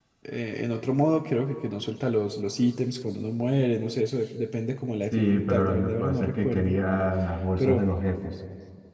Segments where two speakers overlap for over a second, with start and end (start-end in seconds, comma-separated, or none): 5.1-6.8